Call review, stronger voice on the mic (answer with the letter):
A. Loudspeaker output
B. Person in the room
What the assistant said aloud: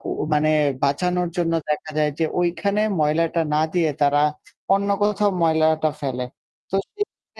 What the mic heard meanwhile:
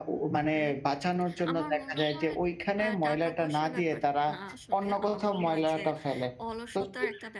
A